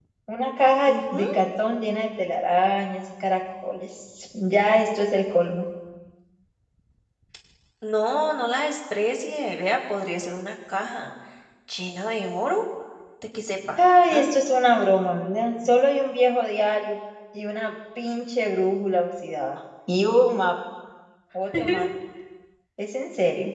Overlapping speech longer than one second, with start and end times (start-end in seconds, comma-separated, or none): none